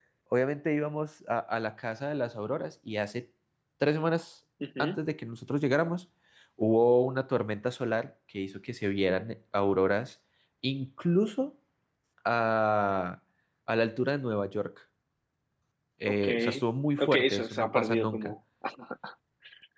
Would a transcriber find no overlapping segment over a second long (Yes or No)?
No